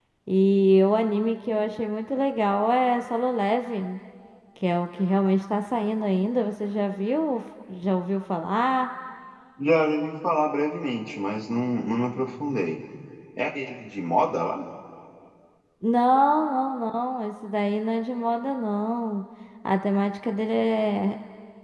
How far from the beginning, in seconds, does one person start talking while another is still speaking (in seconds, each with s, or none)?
none